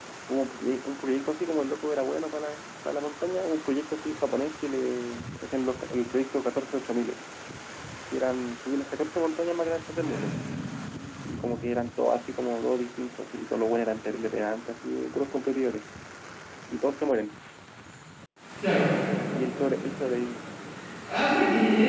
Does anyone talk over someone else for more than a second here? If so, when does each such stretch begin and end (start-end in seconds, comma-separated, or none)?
none